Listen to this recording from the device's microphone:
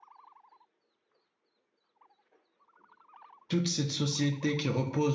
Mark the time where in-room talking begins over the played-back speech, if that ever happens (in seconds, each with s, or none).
3.5 s